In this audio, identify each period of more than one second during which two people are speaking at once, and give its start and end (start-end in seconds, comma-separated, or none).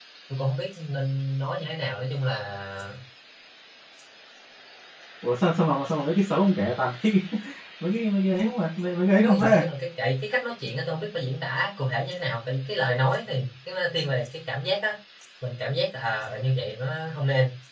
none